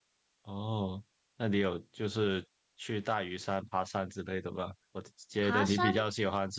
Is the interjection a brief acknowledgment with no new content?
Yes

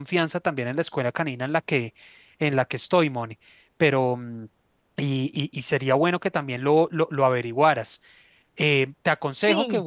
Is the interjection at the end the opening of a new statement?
No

